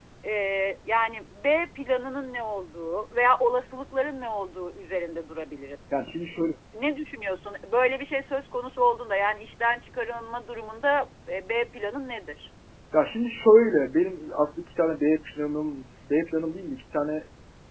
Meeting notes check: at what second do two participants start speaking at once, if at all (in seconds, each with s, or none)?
none